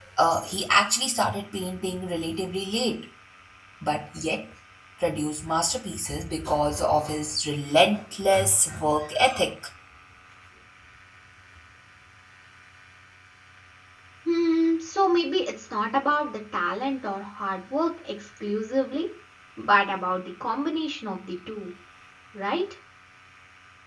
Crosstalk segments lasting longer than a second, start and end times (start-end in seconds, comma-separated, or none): none